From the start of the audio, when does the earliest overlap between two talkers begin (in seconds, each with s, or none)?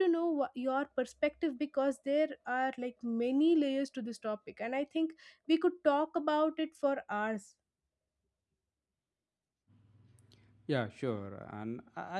none